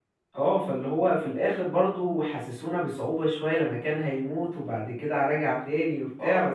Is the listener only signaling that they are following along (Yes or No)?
No